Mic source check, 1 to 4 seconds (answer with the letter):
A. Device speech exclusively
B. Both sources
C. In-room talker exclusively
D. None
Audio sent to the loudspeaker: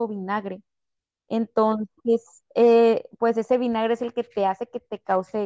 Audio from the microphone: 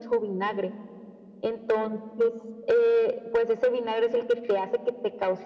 A